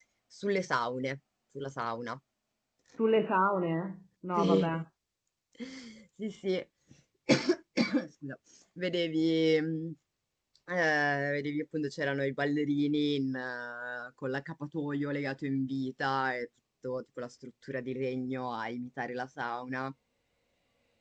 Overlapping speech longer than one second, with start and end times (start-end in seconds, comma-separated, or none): none